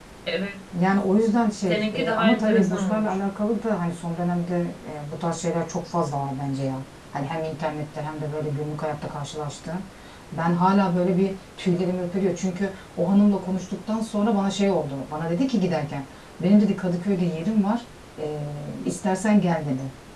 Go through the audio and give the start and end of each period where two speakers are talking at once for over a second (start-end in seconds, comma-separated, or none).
1.7-3.1